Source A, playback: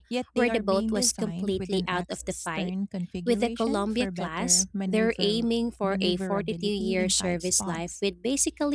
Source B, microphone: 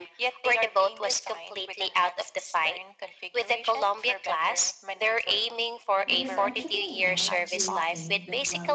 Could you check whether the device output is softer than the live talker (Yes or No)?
No